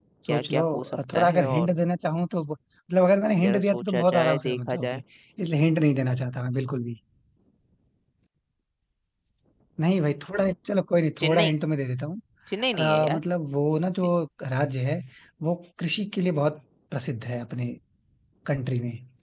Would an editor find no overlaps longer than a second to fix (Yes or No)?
No